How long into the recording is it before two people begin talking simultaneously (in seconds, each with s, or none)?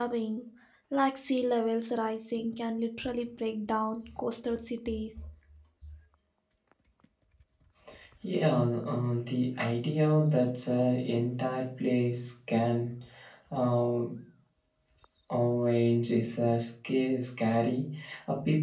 none